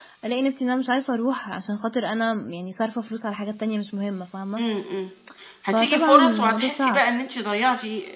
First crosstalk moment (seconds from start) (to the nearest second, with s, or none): 6 s